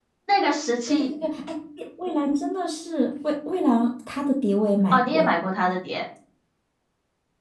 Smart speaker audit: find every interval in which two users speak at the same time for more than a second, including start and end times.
none

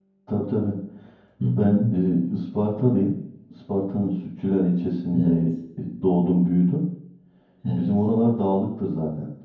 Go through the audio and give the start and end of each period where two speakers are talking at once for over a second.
none

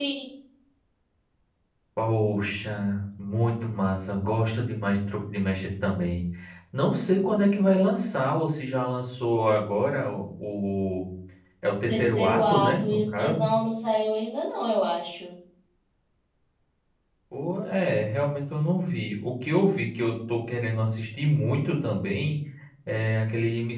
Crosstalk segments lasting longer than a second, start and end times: 11.9-13.5

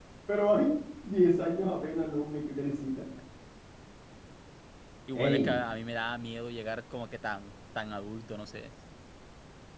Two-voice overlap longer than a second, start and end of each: none

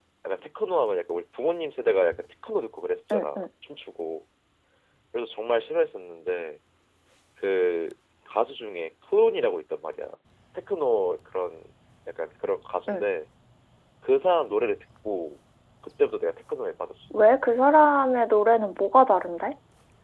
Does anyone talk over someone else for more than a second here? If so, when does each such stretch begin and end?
none

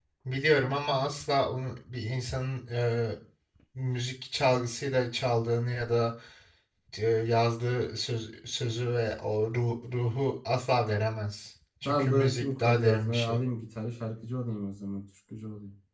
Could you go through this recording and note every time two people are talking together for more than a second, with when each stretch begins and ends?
11.8-13.4

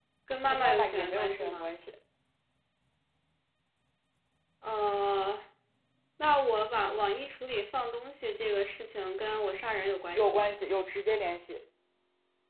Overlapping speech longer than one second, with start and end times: 0.5-1.7

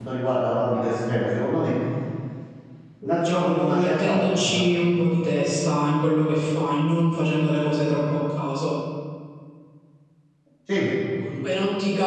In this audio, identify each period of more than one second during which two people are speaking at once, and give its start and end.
3.0-4.7

